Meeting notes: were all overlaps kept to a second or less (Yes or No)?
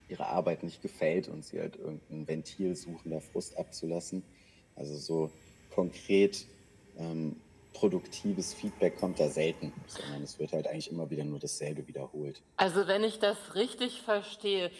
Yes